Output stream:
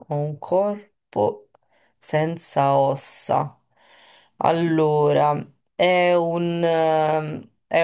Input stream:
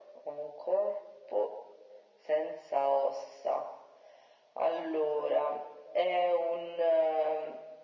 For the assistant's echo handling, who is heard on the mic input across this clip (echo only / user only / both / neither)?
echo only